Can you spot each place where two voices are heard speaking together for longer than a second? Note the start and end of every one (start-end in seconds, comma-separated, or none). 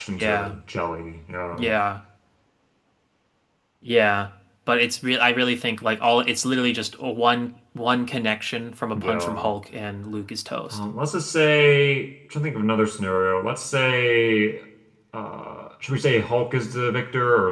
none